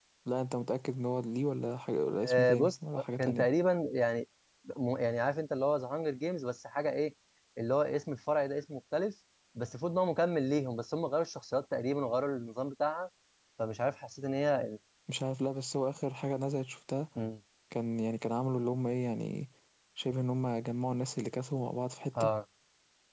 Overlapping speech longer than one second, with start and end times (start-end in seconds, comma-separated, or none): 2.2-3.5